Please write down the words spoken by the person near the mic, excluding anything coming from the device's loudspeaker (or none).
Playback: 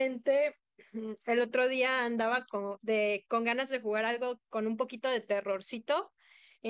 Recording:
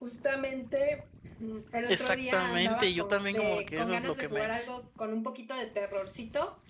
Exactamente, yo también como que eso es lo que me,